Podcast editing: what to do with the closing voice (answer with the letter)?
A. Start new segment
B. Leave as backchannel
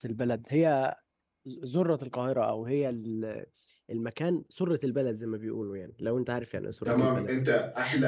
A